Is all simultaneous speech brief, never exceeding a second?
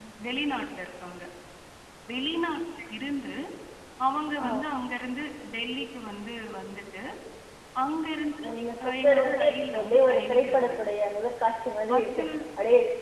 No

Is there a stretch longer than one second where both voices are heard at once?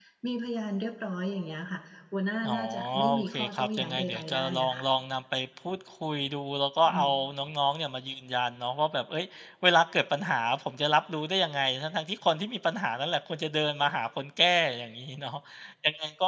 Yes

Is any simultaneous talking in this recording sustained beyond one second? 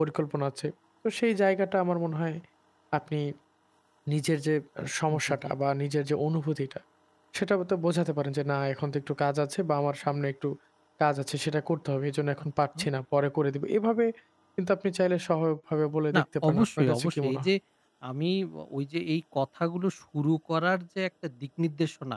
Yes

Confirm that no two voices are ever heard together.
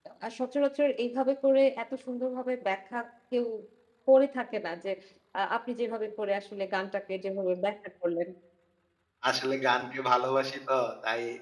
Yes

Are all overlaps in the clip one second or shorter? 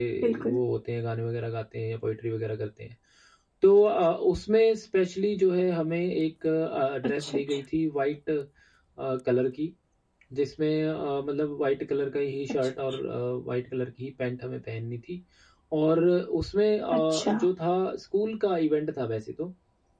Yes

